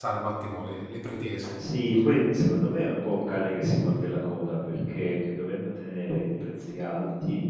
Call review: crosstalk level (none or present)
none